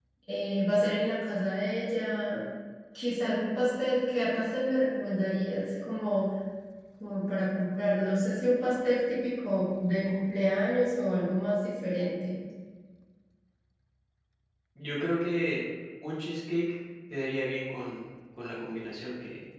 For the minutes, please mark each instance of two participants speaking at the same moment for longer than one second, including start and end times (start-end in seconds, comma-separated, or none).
none